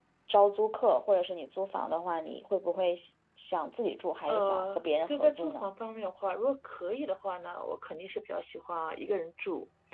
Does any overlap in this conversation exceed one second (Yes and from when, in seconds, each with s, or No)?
Yes, from 4.3 s